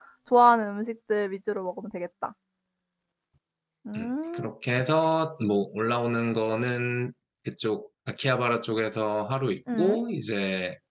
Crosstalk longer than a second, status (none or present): none